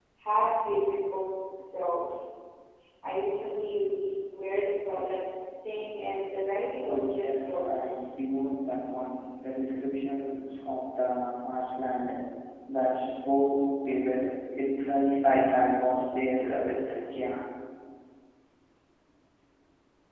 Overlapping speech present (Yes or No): Yes